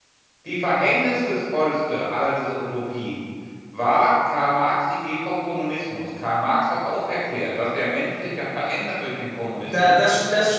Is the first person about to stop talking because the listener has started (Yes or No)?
Yes